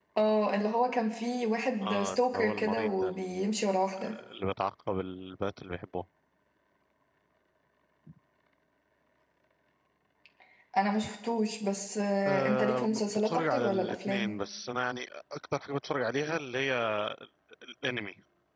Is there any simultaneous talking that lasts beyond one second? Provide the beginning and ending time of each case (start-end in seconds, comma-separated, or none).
1.8-3.1, 12.3-14.4